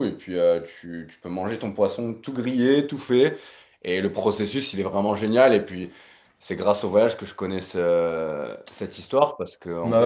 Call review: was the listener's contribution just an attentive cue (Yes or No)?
Yes